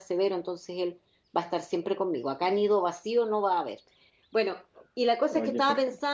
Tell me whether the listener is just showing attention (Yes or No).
Yes